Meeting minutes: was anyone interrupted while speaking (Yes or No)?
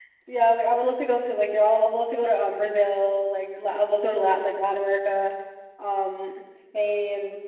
No